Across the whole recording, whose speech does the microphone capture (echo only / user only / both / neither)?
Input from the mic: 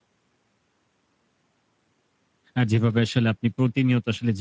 user only